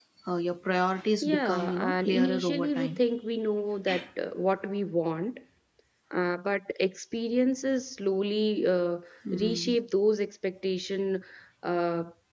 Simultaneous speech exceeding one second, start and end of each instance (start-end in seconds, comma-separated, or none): 1.2-3.0